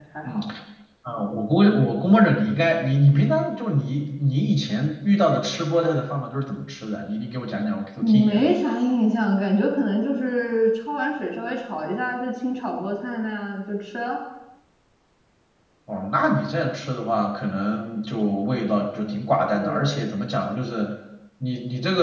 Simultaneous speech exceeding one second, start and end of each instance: none

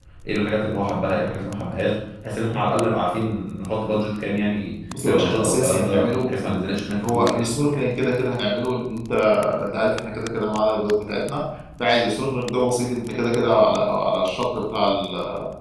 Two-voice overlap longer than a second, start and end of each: 5.0-6.3

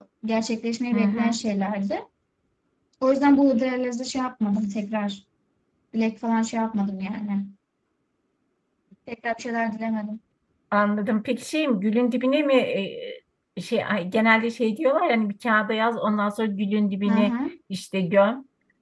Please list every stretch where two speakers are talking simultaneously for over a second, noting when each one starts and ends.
none

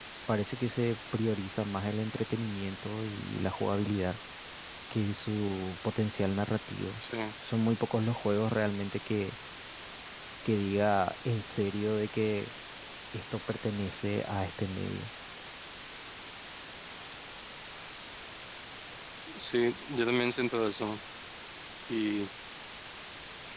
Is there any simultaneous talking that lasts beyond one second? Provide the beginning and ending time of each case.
none

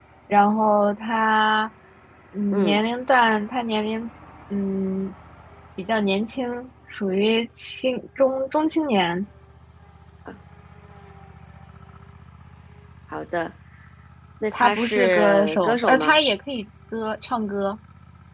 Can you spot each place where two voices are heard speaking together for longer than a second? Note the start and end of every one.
14.5-16.2

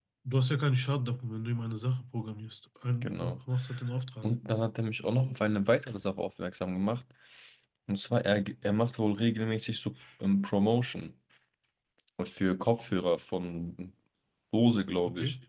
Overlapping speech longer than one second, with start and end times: none

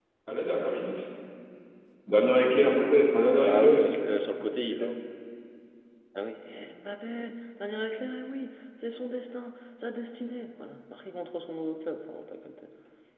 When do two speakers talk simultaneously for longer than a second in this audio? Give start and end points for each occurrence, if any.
none

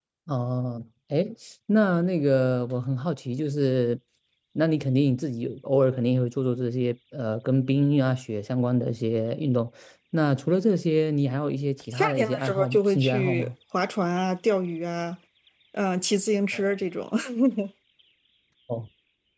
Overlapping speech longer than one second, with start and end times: 11.9-13.5

